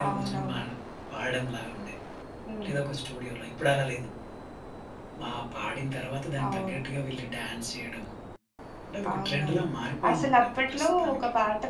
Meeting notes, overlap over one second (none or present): present